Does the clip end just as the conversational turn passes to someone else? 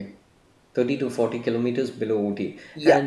No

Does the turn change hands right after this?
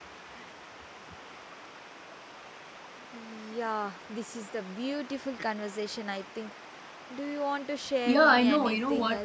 Yes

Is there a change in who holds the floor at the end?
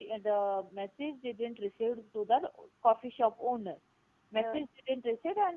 No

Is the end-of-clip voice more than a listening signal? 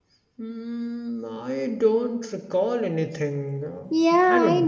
Yes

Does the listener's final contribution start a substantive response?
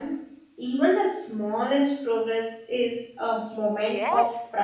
Yes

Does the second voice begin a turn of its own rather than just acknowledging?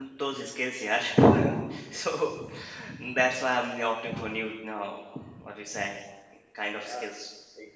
Yes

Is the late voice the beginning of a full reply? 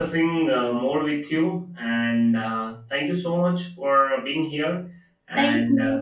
Yes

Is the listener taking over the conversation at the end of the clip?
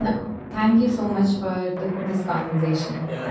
Yes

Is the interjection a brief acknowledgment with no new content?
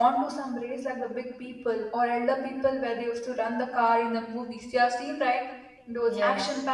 Yes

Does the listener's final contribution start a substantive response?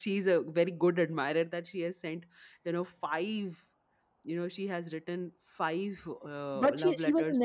Yes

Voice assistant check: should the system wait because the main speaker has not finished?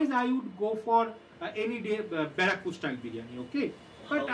Yes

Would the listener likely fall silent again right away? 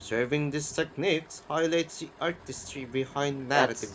No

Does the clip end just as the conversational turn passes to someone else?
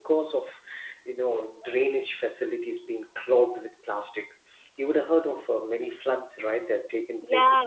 Yes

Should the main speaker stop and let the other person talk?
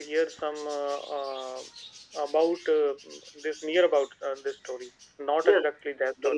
Yes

